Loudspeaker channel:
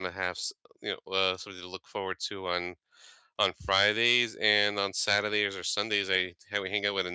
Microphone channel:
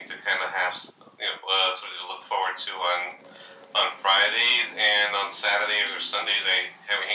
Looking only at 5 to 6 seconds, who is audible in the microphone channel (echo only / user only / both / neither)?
echo only